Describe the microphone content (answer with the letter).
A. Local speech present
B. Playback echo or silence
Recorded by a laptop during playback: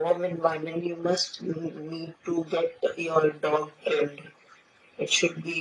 B